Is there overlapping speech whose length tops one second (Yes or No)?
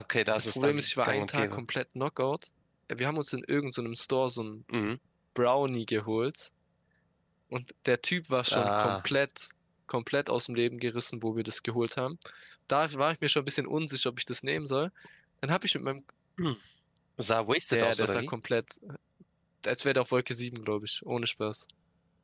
Yes